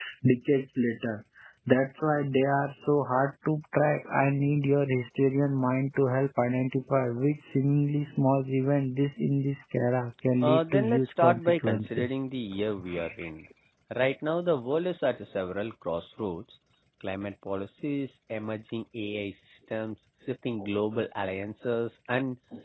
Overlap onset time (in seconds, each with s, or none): 10.4 s